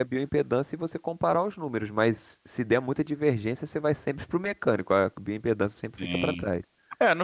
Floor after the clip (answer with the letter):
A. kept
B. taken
B